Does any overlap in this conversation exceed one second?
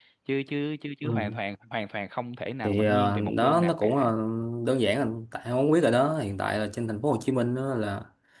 Yes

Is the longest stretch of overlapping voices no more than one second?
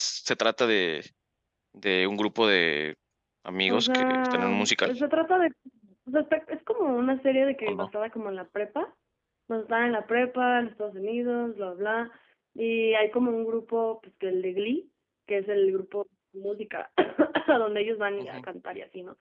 No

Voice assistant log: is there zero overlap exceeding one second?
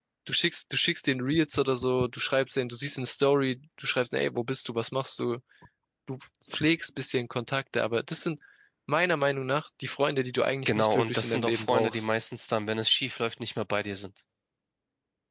No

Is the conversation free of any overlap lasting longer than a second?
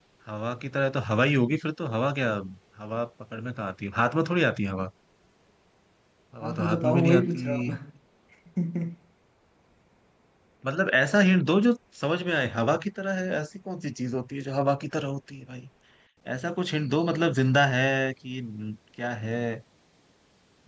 No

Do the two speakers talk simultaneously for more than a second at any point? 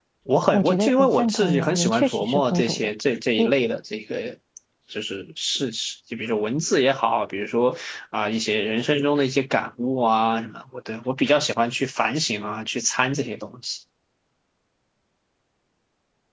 Yes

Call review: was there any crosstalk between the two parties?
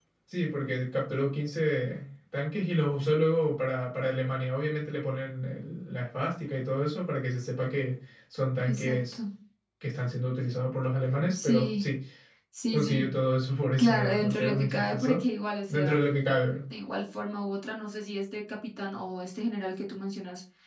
Yes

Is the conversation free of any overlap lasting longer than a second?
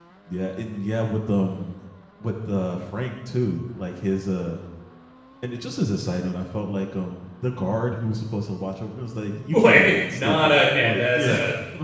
No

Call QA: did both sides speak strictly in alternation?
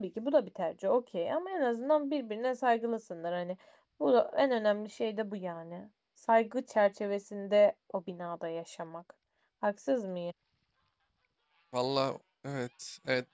Yes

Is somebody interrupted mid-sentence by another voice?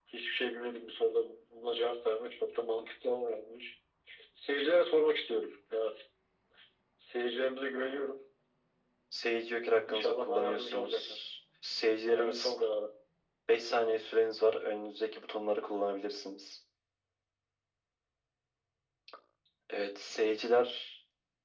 Yes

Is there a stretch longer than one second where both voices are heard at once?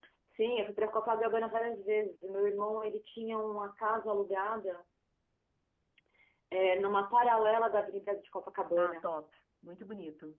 No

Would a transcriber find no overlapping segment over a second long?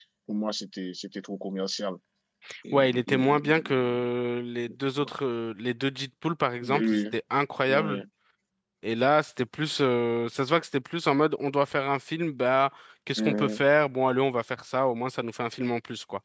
No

